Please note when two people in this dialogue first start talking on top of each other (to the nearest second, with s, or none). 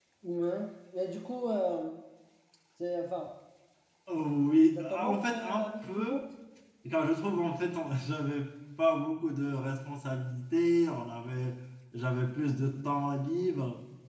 5 s